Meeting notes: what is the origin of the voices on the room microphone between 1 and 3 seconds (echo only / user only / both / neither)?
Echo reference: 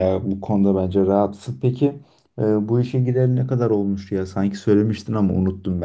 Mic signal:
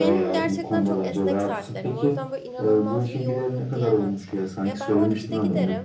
both